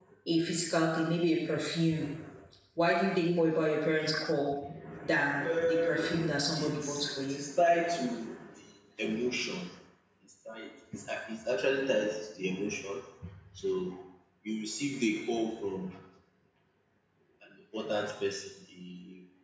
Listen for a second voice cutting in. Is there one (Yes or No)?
Yes